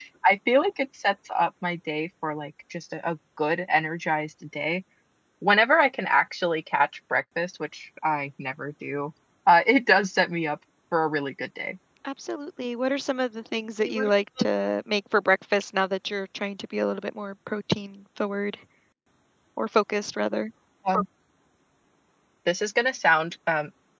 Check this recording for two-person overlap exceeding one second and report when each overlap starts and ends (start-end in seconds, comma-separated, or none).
none